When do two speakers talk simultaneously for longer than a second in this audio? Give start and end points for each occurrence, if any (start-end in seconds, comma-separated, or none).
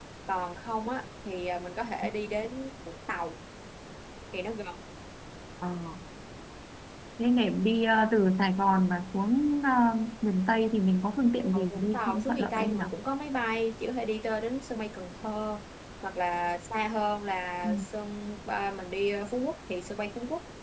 11.5-12.8